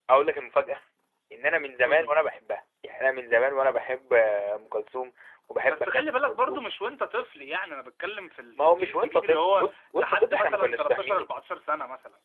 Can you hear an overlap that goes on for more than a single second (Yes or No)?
Yes